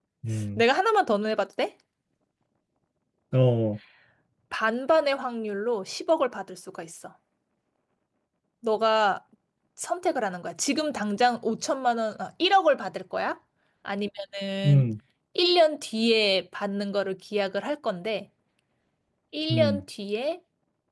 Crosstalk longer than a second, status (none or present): none